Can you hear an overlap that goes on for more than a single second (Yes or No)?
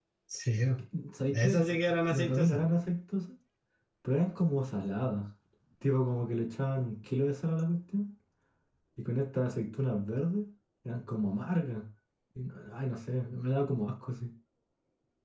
Yes